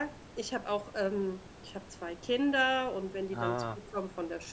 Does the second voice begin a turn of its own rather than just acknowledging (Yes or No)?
No